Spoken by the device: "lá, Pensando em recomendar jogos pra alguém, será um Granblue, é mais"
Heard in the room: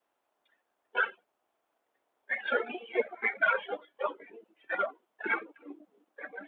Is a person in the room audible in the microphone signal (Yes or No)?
No